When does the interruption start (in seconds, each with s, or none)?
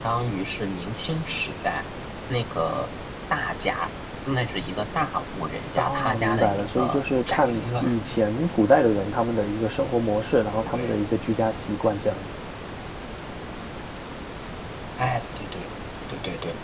5.8 s